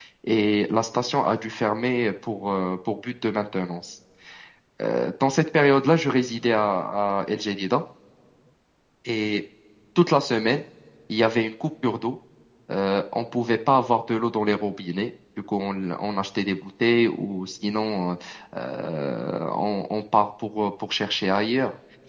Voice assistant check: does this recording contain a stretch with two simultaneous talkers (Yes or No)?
No